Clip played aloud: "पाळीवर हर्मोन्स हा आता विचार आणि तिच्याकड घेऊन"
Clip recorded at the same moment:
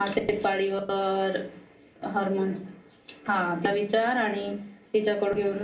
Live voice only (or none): none